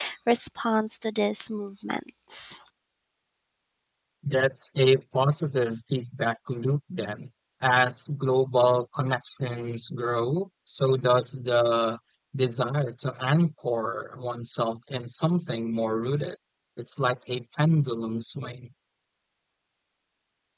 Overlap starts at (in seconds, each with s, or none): none